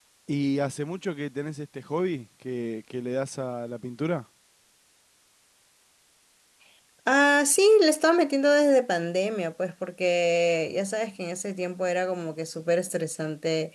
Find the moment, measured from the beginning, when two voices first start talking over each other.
none

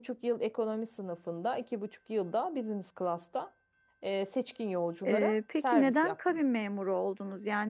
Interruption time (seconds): 5.0 s

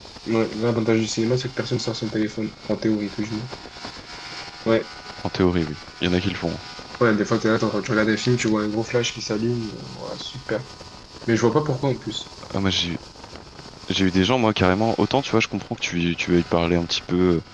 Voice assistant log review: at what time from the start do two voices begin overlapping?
none

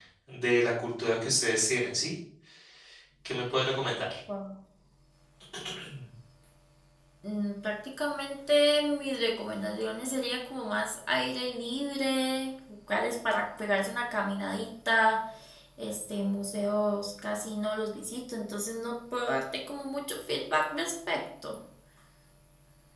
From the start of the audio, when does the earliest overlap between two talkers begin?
none

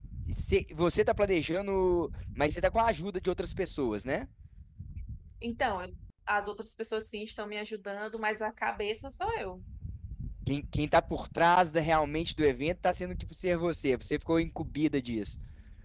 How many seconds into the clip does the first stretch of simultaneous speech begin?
none

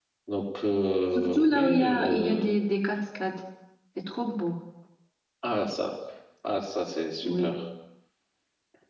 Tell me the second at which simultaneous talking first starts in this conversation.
1.1 s

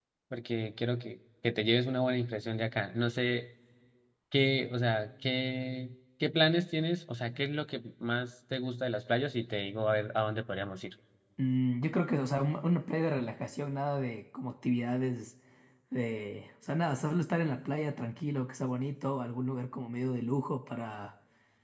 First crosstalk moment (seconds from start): none

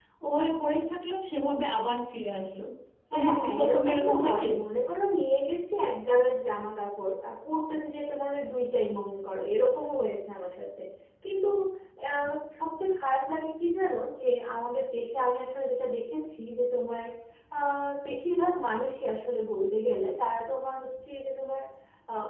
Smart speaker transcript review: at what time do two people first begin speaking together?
3.1 s

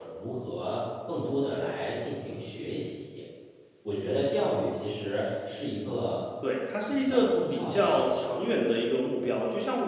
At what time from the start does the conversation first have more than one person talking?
6.9 s

